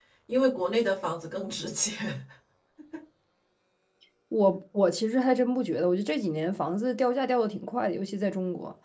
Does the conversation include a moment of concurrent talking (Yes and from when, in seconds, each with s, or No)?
No